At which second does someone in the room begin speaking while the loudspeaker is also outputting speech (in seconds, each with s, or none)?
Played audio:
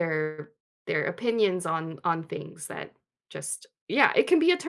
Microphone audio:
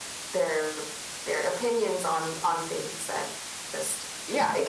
none